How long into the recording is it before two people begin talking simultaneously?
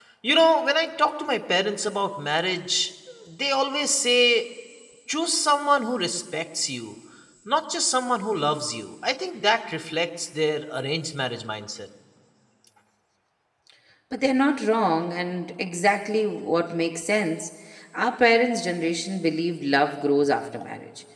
none

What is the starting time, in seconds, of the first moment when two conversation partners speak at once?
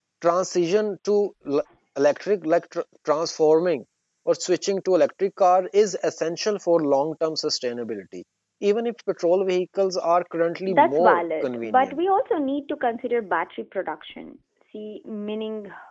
11 s

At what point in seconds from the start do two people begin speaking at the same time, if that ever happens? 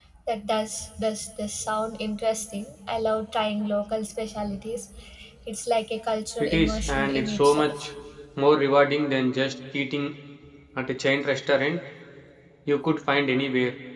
6 s

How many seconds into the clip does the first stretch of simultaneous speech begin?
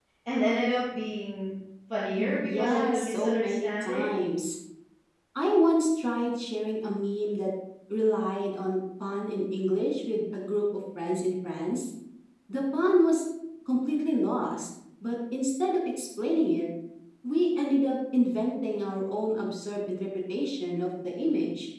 2 s

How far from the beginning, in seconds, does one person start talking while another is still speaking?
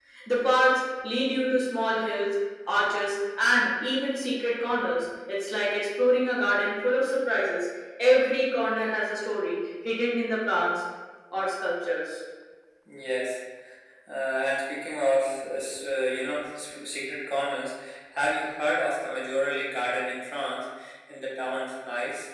none

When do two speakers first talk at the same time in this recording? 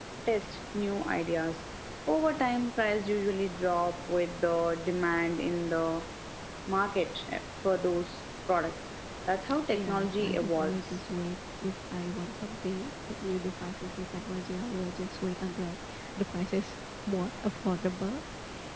10 s

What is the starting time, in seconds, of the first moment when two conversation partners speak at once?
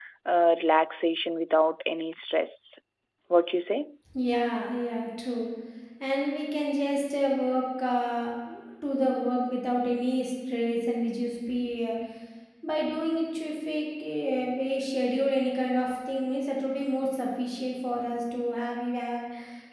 none

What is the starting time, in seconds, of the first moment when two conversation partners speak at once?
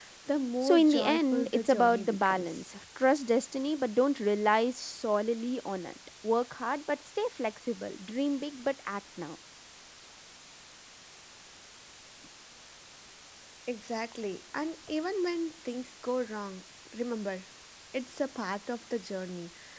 1 s

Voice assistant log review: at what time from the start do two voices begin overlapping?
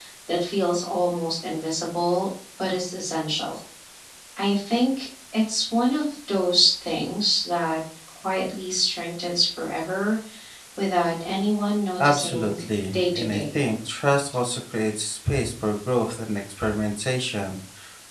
12 s

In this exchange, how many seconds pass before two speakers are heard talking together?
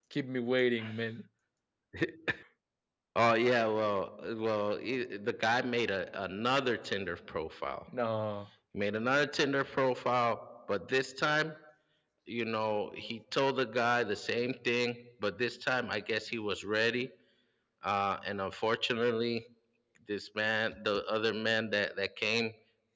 none

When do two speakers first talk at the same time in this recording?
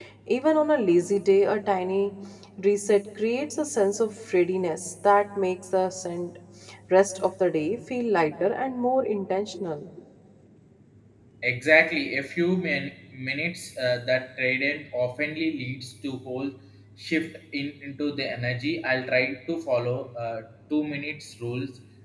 none

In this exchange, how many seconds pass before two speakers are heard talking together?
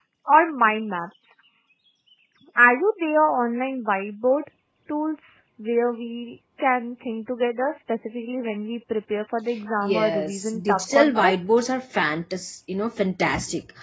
10 s

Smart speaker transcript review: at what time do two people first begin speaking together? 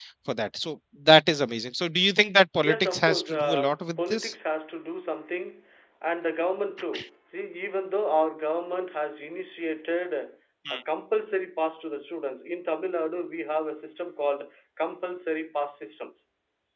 3 s

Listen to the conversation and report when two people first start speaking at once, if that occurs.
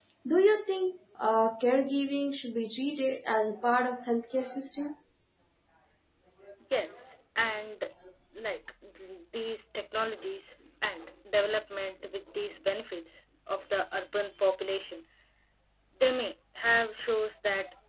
none

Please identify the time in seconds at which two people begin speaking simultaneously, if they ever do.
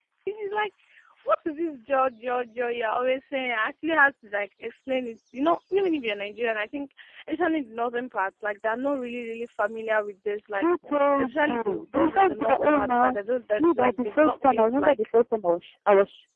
11 s

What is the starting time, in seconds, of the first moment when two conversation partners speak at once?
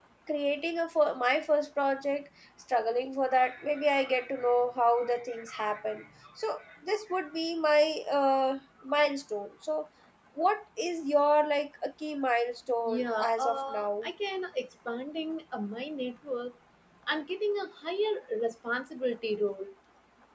13 s

